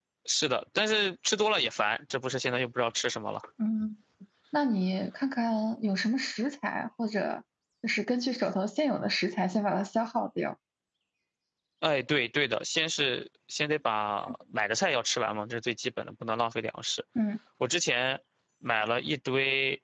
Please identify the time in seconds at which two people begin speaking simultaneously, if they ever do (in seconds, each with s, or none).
none